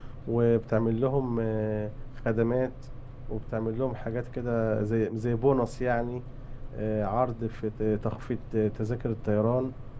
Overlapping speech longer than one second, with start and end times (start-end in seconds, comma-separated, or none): none